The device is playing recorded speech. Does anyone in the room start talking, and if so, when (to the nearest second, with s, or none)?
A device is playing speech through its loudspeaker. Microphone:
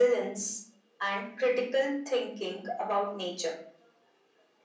none